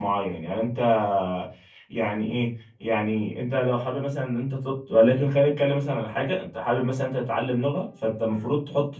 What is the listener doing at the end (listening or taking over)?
listening